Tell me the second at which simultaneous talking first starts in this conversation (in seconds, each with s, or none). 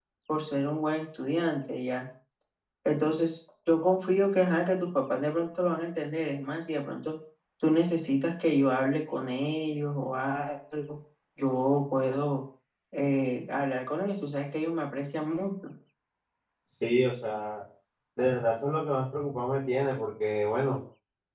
none